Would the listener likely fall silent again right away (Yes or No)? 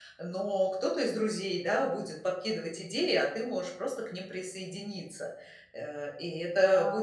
Yes